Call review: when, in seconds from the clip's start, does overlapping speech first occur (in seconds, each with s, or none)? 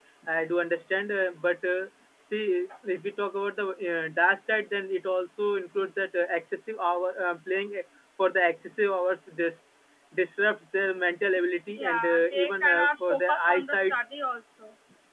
11.8 s